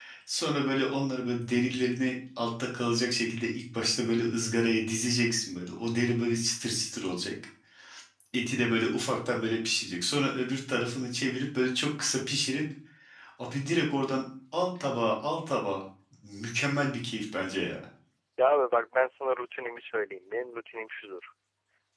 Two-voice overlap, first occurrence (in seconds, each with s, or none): none